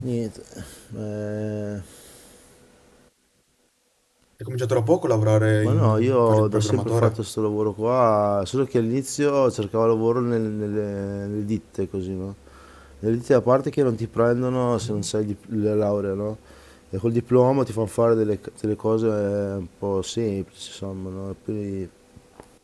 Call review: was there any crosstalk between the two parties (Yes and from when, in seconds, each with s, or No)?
Yes, from 5.6 s